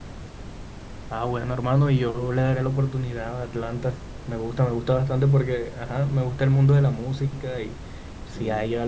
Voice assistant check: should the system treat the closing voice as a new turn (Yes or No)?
No